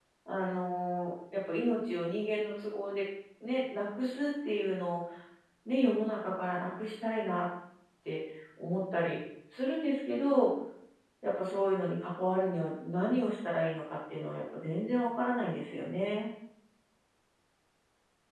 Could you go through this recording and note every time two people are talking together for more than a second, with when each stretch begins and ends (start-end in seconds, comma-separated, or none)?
none